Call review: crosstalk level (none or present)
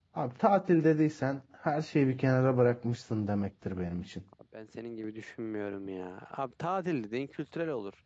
none